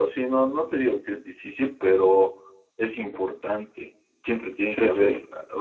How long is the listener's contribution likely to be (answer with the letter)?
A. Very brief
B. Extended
A